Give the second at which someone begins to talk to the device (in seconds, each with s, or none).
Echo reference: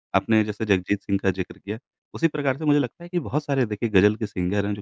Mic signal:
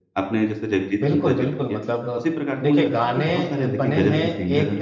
1.0 s